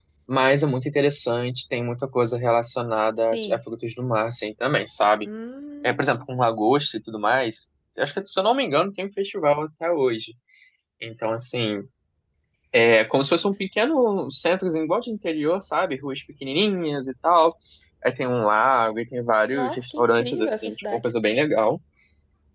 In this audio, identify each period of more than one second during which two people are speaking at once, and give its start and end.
19.5-21.0

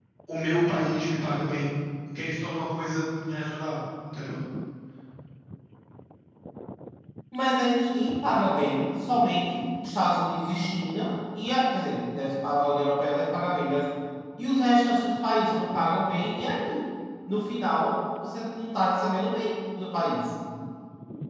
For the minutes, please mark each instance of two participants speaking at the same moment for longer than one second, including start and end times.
none

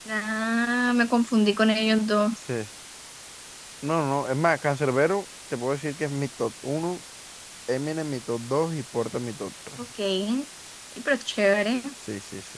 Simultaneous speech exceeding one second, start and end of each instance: none

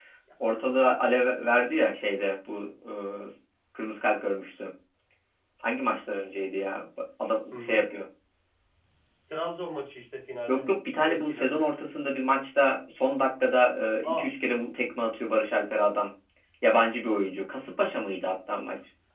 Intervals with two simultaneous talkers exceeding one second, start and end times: 10.5-11.7

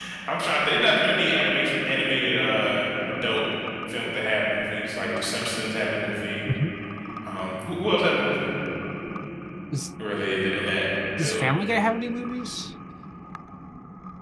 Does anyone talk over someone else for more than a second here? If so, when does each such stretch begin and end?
none

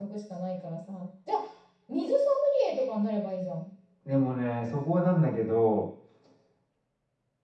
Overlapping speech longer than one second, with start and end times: none

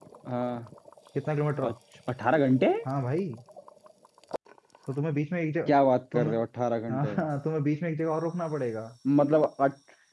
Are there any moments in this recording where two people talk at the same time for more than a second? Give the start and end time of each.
none

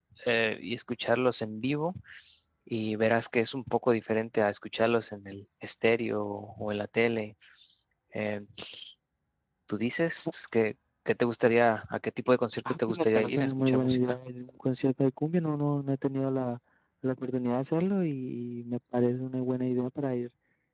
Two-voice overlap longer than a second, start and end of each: 12.7-14.0

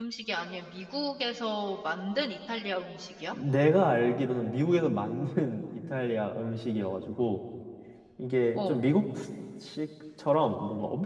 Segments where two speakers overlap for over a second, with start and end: none

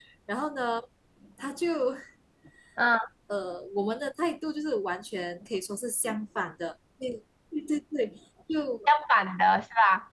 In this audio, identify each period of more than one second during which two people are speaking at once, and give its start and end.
none

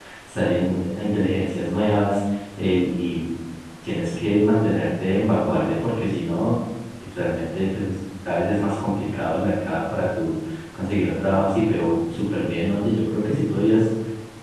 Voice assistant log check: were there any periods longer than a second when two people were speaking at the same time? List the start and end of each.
none

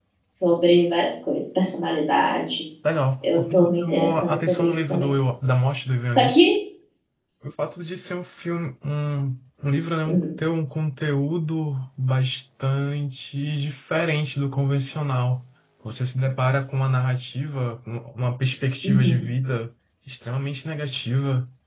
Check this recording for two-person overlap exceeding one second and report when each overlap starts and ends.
3.2-5.1

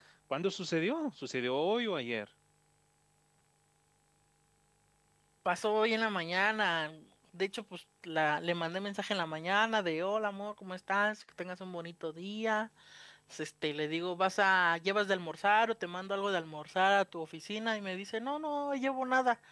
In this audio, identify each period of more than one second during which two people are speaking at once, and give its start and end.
none

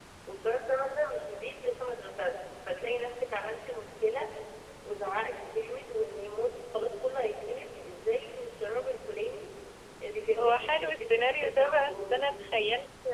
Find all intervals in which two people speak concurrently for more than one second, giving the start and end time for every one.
10.4-12.1

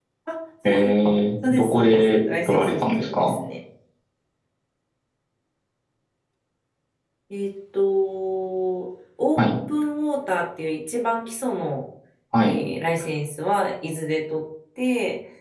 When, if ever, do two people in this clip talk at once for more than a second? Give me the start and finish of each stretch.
1.5-3.3

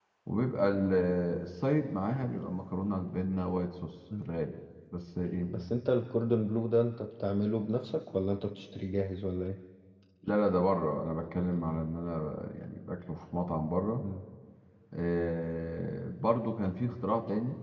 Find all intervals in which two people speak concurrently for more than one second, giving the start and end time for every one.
none

